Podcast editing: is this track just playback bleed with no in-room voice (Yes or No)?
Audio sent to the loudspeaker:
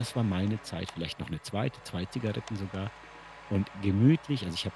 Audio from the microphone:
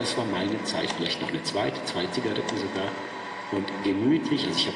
Yes